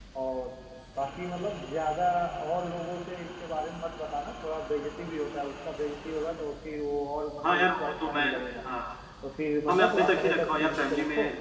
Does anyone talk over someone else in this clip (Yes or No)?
Yes